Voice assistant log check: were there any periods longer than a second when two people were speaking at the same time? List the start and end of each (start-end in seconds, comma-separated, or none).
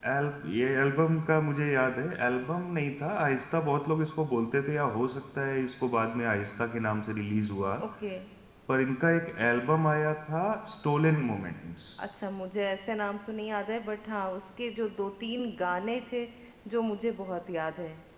none